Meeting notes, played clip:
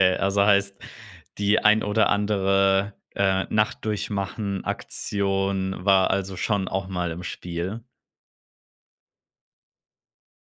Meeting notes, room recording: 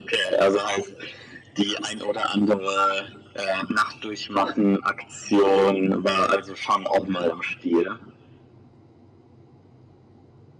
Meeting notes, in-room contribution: none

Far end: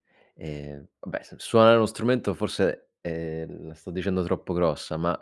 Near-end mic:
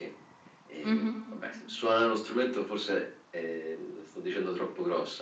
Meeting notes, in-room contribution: present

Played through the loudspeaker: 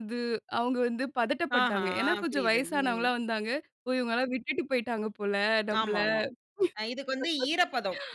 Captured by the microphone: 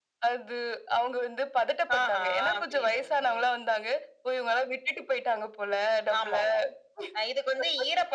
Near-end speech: none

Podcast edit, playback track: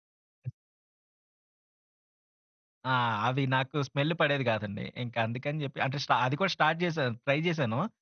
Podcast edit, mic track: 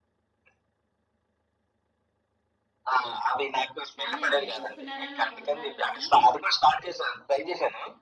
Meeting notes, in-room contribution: present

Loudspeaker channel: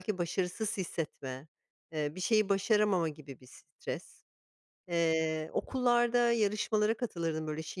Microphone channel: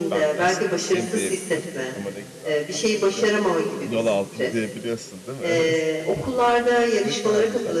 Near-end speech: present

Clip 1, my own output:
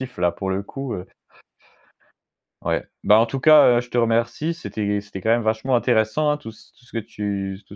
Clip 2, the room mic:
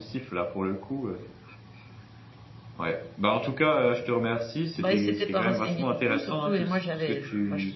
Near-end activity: present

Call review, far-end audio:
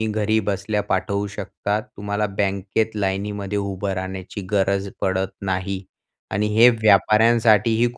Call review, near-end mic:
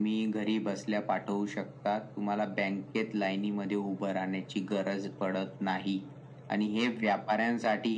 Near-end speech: none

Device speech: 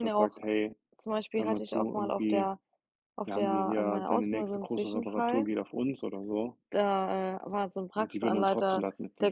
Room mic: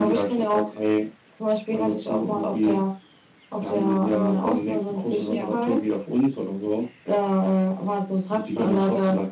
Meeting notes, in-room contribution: present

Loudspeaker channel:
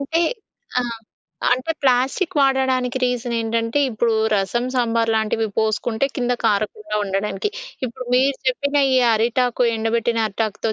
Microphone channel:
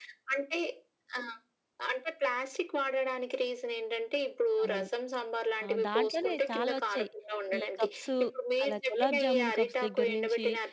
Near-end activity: present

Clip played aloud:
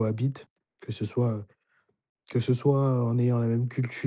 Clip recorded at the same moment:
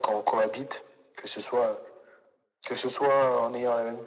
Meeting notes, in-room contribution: none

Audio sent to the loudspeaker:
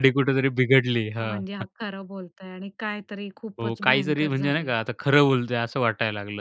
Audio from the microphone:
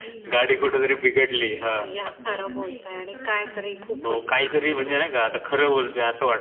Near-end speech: present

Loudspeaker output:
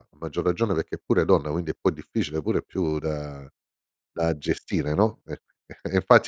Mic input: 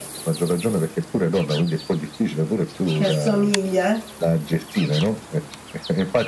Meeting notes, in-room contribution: present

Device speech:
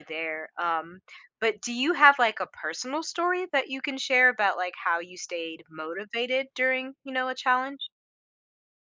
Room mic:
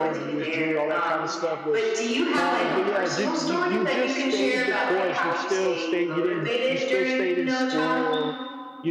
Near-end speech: present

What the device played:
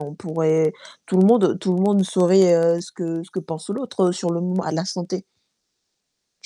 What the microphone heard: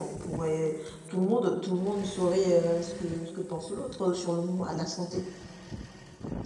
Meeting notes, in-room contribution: none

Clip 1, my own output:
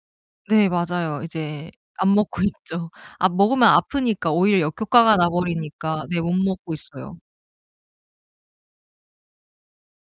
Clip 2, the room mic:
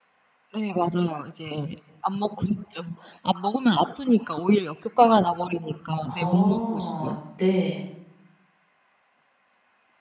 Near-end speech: present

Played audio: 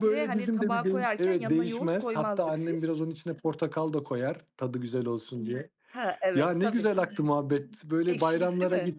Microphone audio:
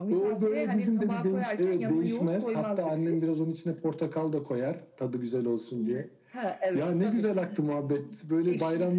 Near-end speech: none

